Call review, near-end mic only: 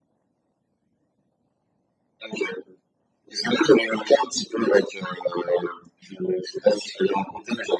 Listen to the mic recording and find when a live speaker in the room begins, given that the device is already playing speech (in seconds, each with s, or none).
none